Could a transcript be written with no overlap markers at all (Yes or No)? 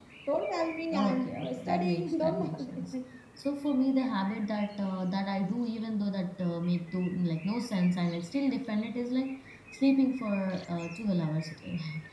No